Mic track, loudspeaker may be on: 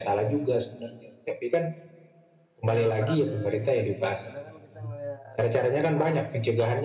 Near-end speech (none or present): present